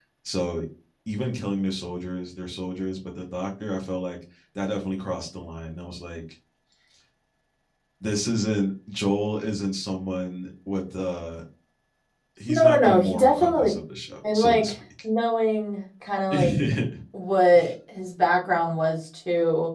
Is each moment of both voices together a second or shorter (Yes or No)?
No